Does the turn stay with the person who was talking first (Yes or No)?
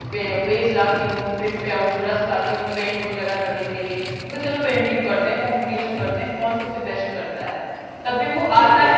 Yes